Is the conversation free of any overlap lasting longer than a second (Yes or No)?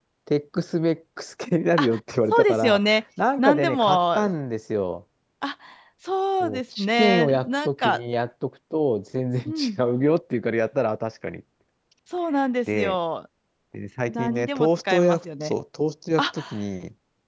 No